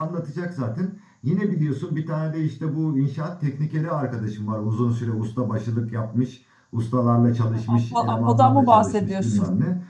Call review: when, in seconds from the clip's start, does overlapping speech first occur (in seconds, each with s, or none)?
7.7 s